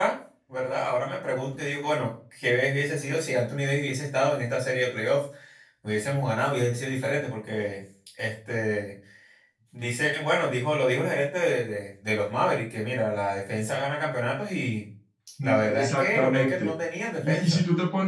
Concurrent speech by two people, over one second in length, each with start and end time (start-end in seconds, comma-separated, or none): 15.4-16.7